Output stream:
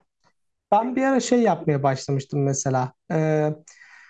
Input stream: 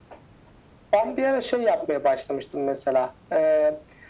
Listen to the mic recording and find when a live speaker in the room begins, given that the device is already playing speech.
none

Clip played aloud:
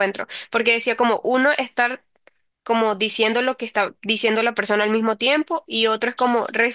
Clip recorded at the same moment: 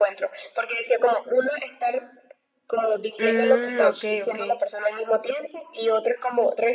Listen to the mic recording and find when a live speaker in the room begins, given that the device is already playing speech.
3.2 s

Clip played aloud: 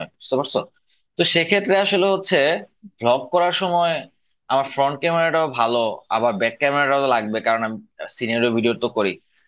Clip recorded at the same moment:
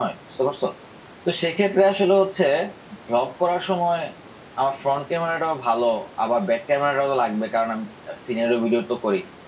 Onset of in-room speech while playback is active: none

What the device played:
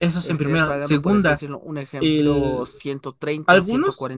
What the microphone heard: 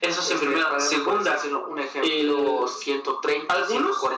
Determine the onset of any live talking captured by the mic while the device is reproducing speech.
none

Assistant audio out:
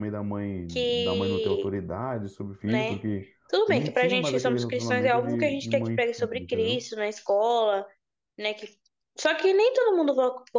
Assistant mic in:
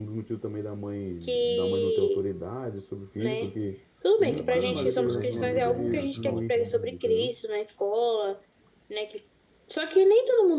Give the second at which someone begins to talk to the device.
4.2 s

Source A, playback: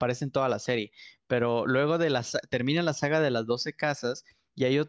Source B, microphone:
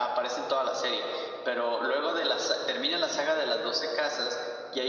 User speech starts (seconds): none

